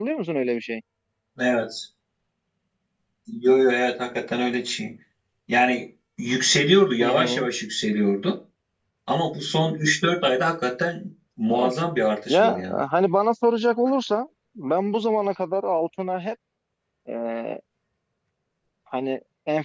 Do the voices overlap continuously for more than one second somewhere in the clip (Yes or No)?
No